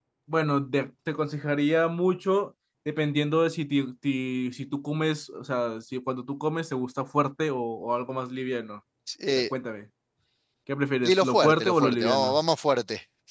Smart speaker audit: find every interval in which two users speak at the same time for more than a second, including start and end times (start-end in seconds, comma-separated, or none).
11.0-12.4